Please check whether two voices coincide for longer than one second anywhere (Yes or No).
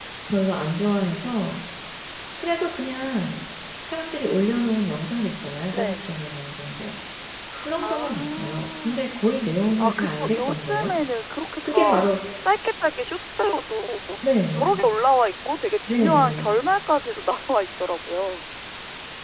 Yes